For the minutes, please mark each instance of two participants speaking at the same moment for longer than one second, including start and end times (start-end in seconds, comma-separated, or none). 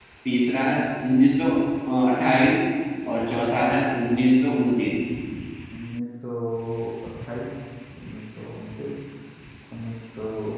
none